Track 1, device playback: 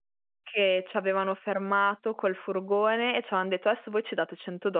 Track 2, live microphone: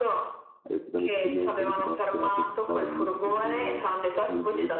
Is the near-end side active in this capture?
Yes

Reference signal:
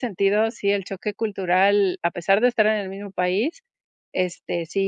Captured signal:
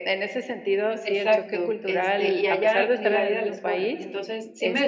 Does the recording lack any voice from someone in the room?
No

